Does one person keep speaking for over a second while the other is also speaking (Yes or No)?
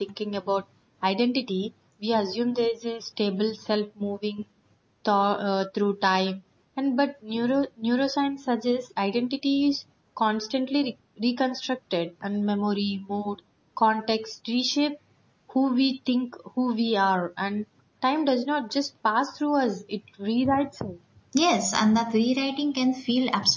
No